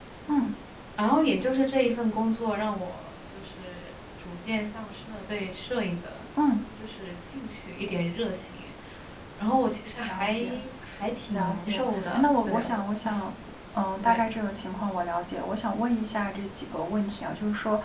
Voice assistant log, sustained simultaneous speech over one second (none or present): present